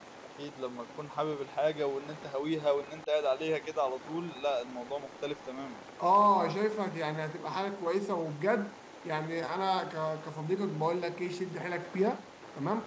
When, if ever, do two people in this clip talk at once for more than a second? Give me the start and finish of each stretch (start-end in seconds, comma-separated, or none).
none